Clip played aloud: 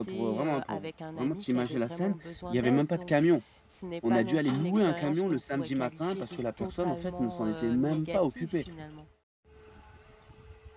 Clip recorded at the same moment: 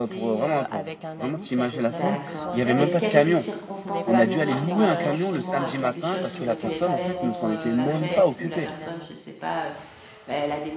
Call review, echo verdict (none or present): present